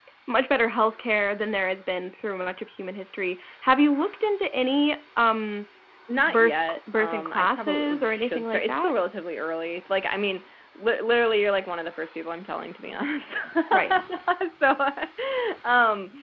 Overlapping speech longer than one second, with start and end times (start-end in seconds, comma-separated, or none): 6.3-8.9